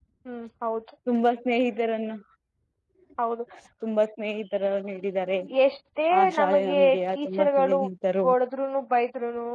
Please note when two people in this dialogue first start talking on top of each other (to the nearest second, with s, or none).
6 s